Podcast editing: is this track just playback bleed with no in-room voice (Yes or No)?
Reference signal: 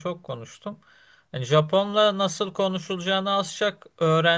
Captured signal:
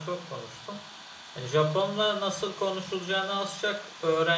Yes